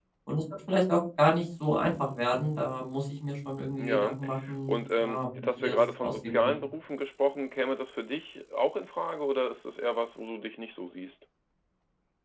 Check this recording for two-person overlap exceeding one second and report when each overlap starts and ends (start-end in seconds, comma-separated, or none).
4.7-6.5